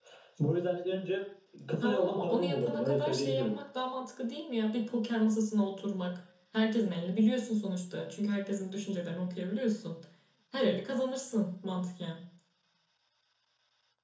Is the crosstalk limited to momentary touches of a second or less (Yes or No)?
No